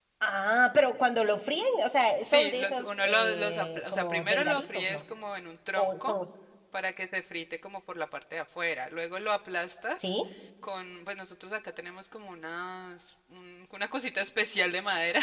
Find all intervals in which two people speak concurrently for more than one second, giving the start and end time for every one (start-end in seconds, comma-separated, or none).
2.2-5.0